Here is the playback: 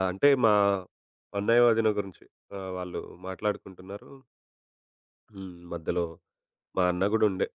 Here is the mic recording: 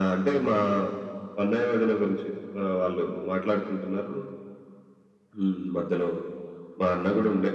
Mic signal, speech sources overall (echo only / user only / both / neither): echo only